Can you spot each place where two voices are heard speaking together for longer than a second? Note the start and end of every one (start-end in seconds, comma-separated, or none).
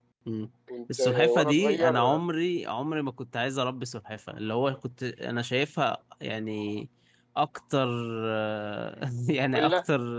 1.0-2.2